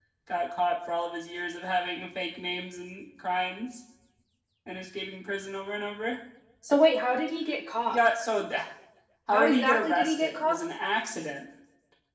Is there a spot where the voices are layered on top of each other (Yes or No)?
Yes